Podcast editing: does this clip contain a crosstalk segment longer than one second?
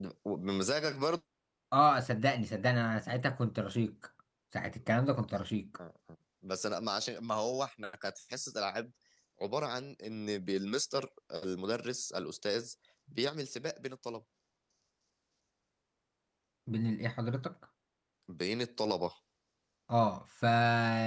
No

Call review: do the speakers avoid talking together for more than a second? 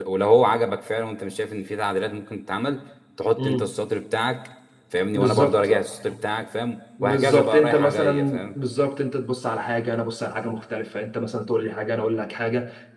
No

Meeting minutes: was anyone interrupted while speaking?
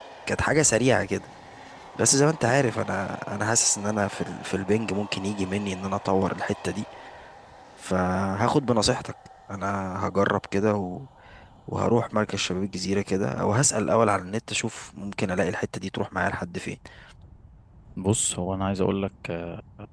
No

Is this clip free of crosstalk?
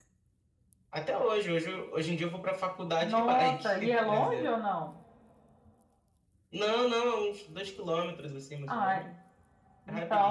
No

